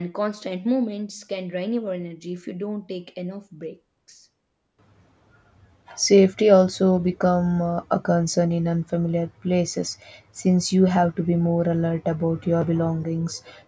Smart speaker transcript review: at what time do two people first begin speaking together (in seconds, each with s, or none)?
none